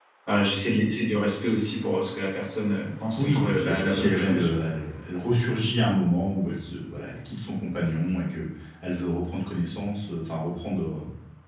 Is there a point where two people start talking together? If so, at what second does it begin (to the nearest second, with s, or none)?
3 s